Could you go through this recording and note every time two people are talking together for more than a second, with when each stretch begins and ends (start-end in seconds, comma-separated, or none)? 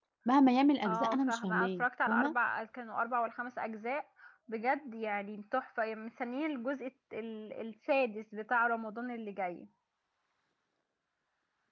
0.8-2.3